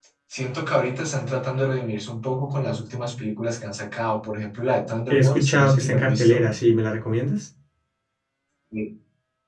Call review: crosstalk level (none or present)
present